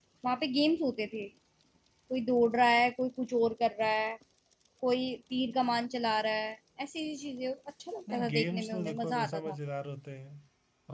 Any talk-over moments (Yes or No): Yes